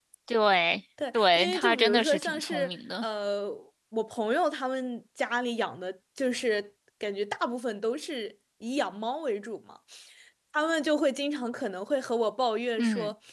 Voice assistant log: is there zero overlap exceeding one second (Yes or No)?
No